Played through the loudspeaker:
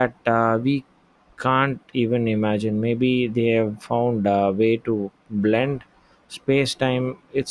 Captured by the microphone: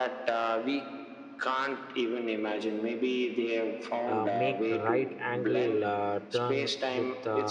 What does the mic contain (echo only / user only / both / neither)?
both